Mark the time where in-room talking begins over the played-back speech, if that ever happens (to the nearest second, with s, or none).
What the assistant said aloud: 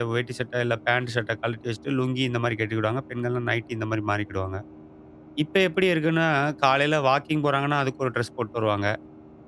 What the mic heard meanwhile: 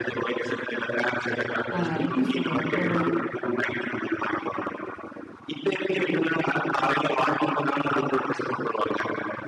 2 s